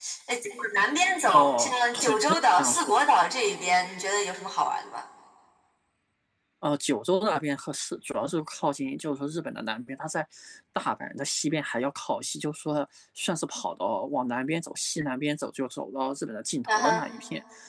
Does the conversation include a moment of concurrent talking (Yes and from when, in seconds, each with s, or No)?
Yes, from 1.3 s